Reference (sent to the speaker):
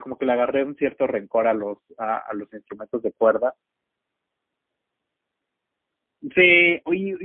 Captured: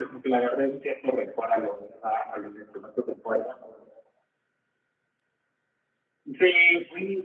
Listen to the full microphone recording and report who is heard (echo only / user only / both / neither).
echo only